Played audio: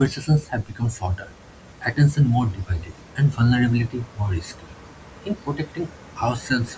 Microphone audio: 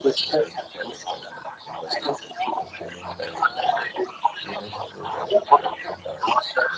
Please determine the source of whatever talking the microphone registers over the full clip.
both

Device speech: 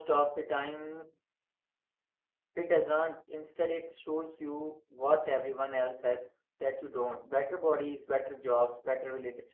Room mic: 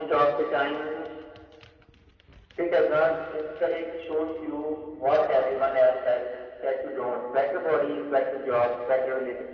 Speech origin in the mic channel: echo only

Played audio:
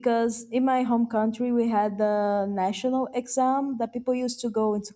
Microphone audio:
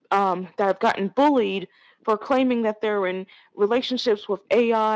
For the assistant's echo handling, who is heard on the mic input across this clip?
user only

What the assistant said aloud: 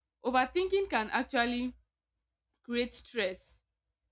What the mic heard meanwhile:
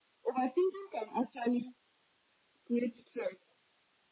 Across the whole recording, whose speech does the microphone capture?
echo only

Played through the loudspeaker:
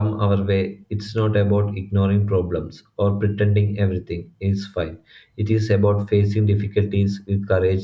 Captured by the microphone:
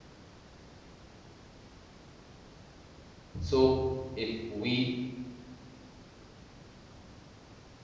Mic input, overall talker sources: user only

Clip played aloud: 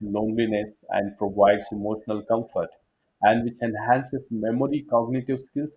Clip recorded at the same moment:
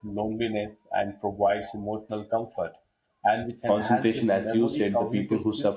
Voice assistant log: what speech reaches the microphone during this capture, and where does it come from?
both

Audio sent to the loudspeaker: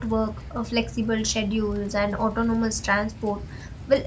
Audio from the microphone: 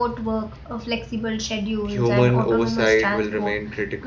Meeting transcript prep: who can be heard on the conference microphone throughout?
both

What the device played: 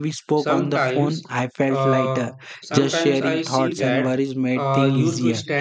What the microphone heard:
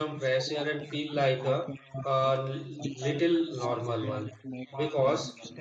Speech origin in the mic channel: both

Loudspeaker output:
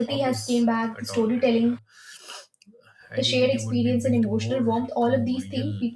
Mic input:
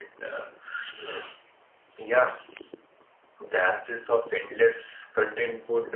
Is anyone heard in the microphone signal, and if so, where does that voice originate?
user only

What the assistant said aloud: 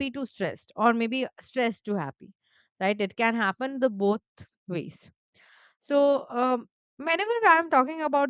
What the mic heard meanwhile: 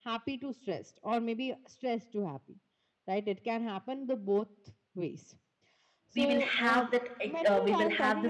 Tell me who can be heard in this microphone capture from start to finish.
both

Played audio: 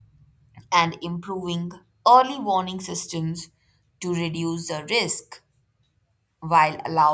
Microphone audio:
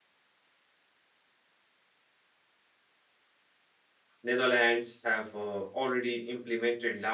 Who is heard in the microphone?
user only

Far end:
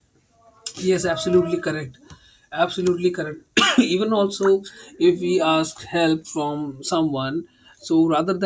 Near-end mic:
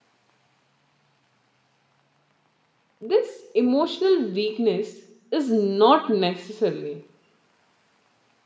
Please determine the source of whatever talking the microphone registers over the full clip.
user only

